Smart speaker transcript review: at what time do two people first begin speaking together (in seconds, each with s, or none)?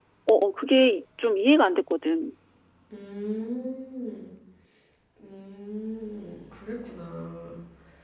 none